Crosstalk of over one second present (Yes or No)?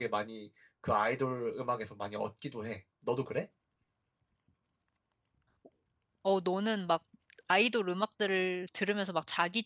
No